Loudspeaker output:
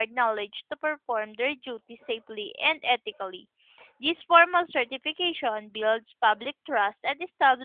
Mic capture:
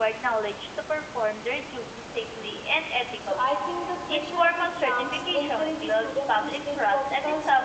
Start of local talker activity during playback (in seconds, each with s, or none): 3.2 s